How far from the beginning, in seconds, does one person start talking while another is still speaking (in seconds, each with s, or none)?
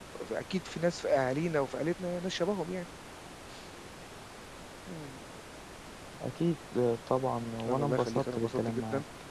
7.6 s